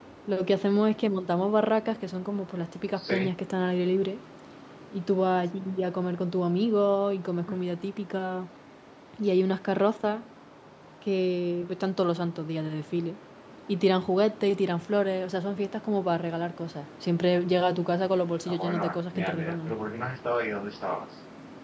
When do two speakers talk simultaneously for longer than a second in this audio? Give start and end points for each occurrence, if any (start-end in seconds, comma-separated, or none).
18.5-19.7